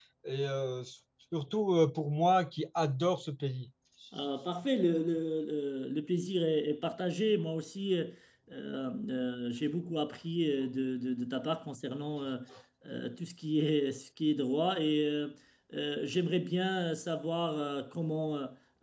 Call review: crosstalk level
none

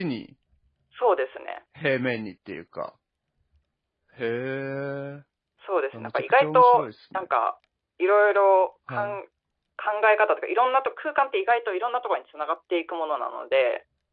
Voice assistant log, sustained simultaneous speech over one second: present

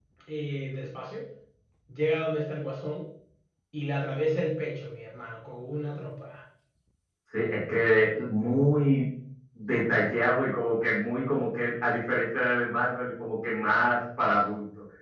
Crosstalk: none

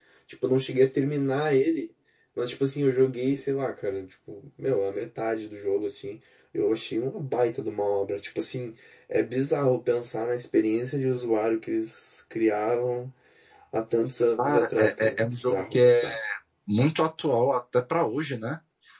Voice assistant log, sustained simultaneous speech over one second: present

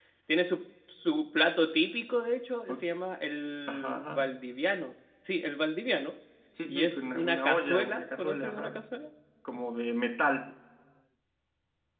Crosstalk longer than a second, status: present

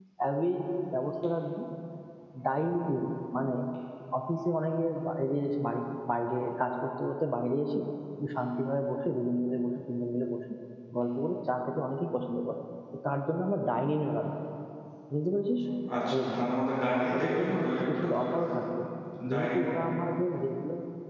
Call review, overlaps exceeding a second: present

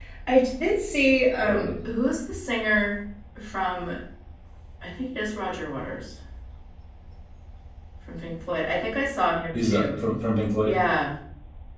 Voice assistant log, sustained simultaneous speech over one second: none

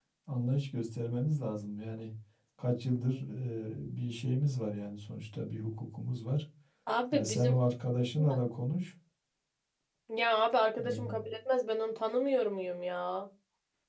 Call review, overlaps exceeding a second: none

